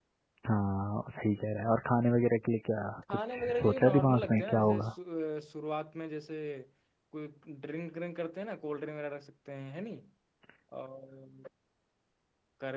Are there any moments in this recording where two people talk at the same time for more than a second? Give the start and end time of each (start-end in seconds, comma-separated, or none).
3.1-5.0